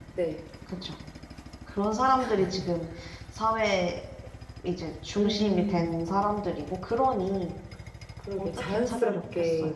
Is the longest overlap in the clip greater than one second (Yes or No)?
Yes